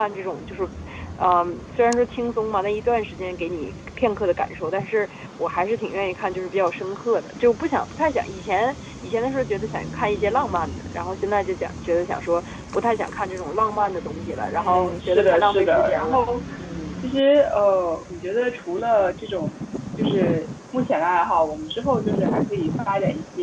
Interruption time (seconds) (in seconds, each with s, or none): 14.6 s